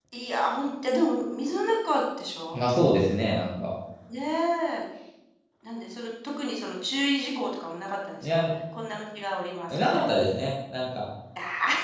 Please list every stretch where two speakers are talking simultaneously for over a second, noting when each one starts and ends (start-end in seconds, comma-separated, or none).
none